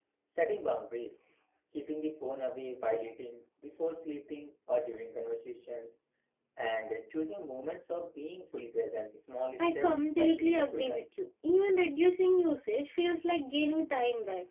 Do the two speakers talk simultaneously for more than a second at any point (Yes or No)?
Yes